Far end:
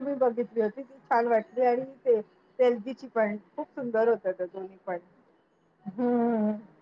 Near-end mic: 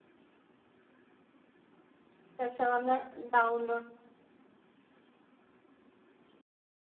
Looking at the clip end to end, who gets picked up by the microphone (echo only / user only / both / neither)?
user only